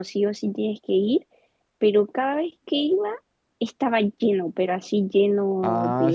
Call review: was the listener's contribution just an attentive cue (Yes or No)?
No